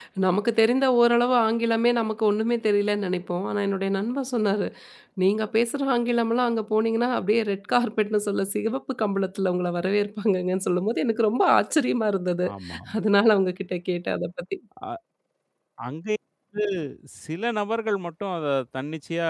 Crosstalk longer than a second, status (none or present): none